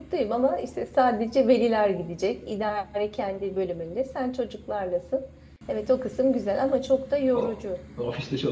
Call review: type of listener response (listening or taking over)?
taking over